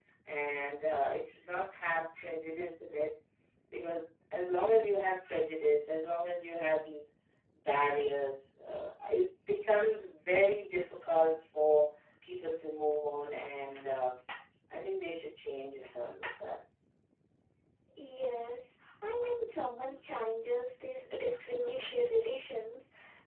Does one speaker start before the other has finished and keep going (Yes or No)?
No